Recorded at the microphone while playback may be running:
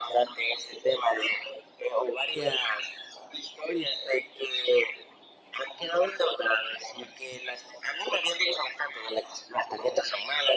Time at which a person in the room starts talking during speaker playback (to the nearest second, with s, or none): none